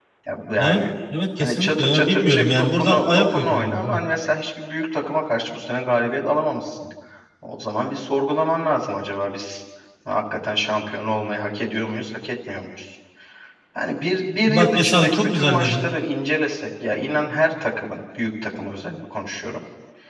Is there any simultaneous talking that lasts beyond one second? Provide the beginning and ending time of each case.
1.4-4.0, 14.5-15.8

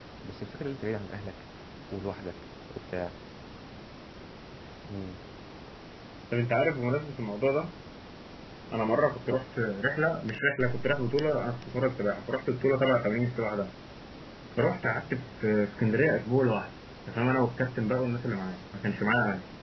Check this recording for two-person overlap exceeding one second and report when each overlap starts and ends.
none

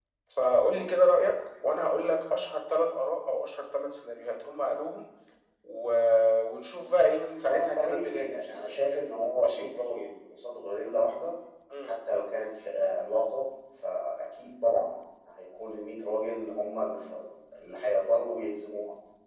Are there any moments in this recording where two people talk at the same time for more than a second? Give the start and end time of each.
7.4-8.8

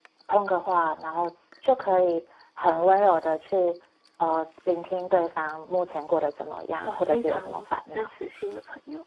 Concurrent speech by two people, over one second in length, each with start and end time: 6.8-8.1

